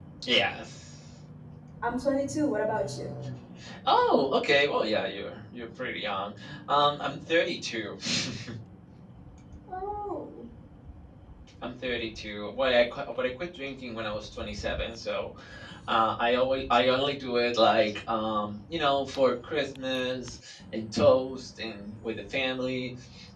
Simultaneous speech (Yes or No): No